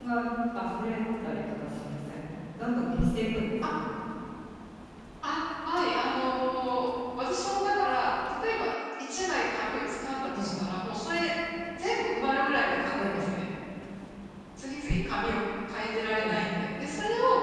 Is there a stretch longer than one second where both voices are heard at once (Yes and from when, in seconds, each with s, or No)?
No